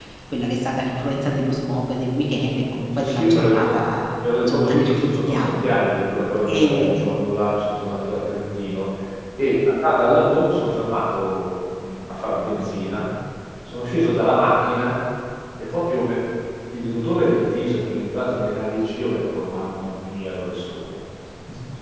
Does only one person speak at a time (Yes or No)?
No